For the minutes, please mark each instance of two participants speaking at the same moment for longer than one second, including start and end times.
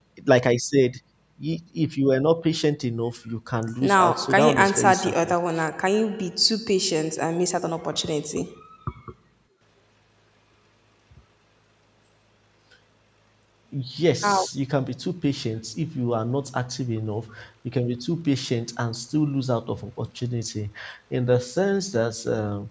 3.8-5.3

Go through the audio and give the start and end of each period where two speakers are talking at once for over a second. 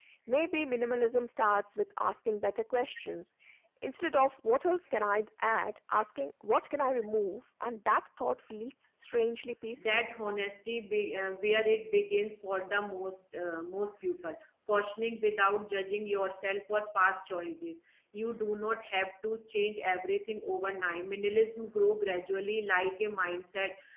none

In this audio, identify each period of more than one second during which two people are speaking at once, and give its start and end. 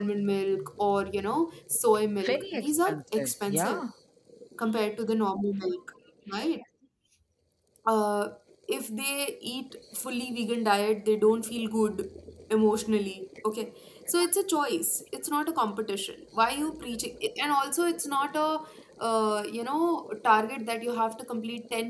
2.2-3.8

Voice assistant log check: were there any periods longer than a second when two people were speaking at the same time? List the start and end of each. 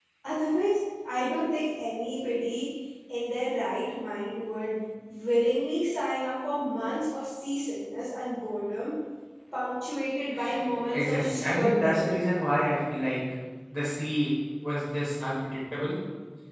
10.9-12.2

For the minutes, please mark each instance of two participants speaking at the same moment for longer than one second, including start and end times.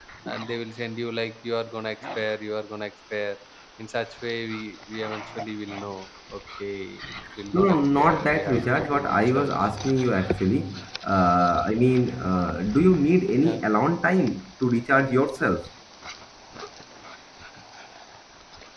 7.5-9.5

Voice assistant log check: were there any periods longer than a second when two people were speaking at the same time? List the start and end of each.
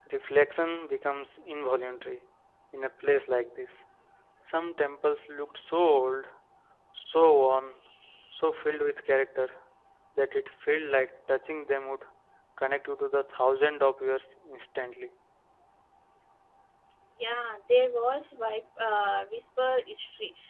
none

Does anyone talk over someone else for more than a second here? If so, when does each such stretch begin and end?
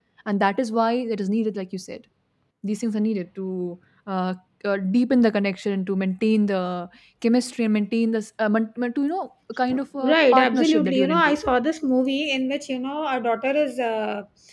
10.0-11.4

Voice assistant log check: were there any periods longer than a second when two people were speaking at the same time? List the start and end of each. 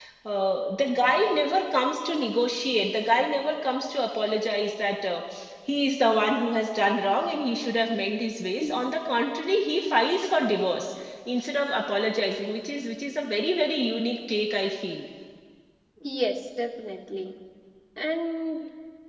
none

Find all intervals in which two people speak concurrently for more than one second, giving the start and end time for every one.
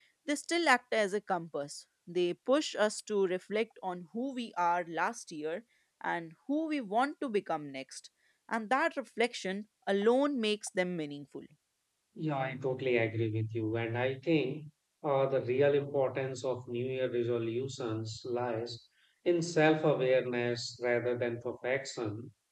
none

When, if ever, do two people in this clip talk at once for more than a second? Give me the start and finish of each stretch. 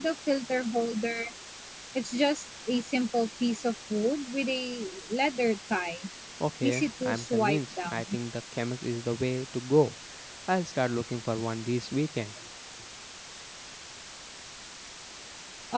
6.6-8.2

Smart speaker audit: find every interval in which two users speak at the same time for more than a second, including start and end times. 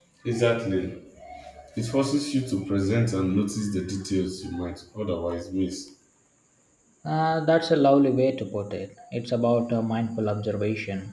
none

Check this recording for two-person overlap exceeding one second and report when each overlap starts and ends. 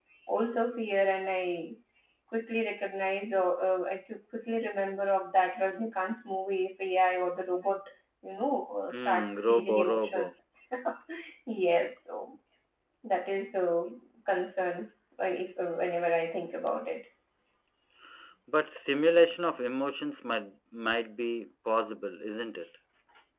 8.9-10.3

